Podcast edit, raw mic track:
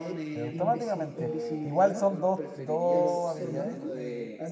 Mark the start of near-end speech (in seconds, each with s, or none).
0.3 s